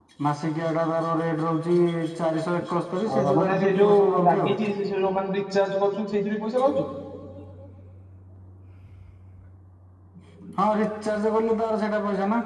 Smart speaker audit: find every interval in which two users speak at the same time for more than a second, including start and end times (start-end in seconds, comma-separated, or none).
3.1-4.5